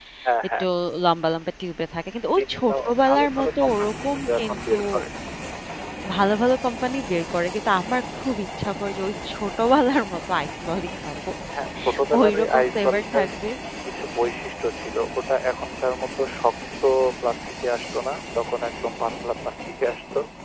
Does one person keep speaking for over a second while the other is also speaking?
Yes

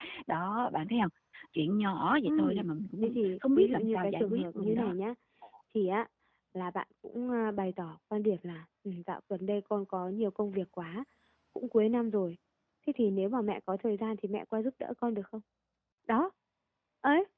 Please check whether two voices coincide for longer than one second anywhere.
Yes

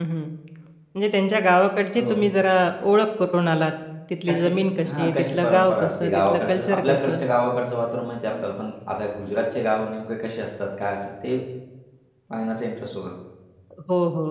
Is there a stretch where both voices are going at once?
Yes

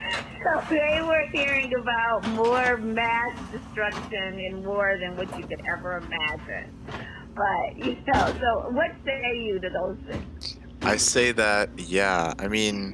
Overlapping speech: No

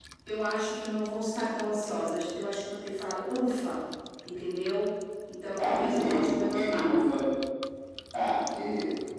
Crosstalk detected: Yes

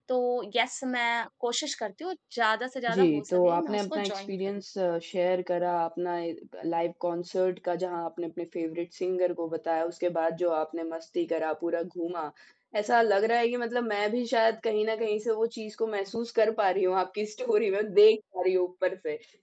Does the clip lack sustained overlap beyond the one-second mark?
No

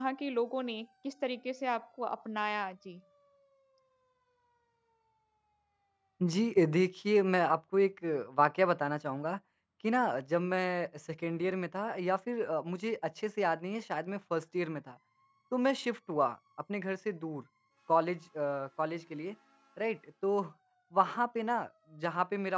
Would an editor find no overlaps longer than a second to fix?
Yes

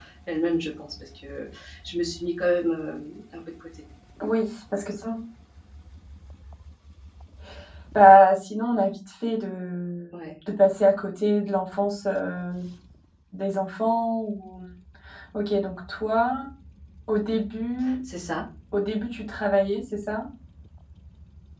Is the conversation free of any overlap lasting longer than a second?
Yes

